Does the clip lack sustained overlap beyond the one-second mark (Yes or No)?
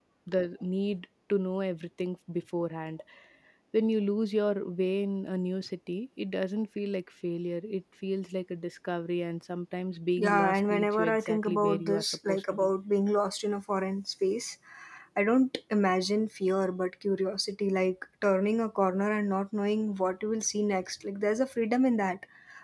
No